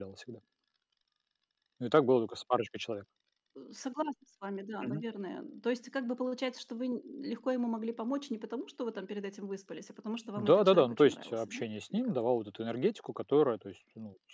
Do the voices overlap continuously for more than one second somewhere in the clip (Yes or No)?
Yes